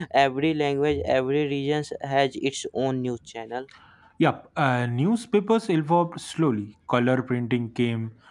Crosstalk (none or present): none